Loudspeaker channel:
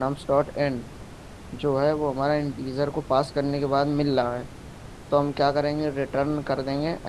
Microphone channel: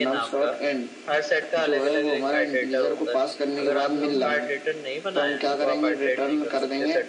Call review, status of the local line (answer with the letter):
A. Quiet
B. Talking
B